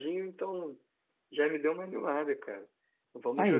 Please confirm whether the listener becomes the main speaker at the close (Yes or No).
No